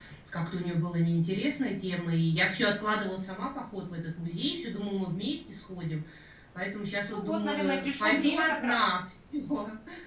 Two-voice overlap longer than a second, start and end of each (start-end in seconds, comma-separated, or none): 7.0-9.0